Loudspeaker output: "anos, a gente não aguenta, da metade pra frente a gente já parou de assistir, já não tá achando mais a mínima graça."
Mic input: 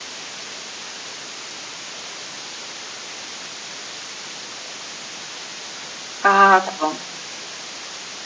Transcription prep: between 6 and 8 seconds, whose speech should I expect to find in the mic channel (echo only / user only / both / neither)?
user only